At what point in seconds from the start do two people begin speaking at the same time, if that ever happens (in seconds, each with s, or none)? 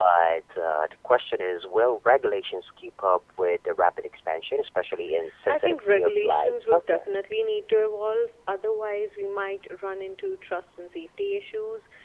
5.5 s